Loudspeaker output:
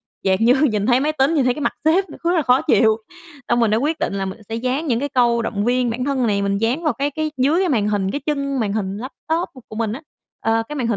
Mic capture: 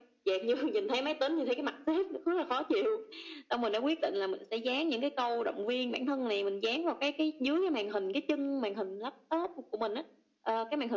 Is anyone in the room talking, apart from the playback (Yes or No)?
No